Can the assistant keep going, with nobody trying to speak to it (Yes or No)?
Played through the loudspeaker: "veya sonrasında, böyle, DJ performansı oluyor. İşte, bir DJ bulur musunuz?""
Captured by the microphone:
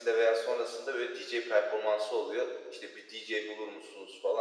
Yes